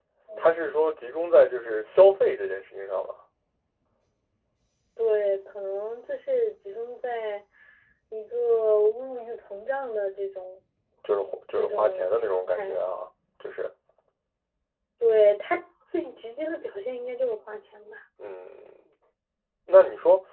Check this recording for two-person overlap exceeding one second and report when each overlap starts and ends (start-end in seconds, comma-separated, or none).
11.5-12.8